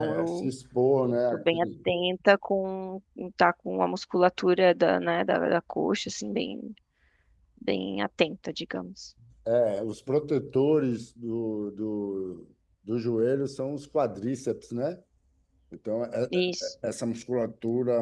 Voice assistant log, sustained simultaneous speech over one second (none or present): none